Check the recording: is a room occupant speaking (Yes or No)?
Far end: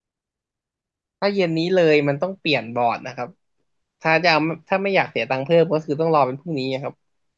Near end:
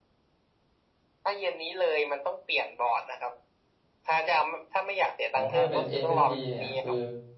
Yes